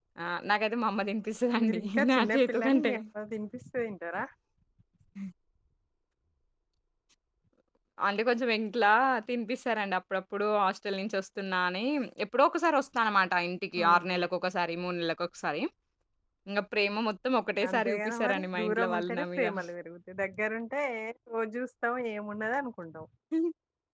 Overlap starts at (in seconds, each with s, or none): 1.6 s